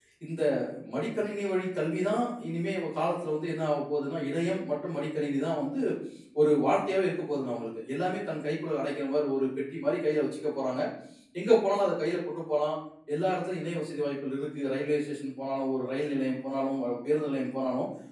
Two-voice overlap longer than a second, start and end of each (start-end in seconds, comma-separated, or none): none